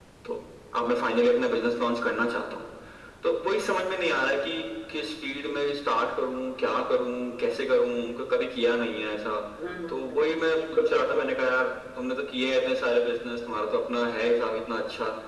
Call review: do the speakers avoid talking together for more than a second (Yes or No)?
No